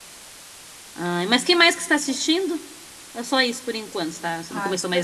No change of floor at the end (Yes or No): No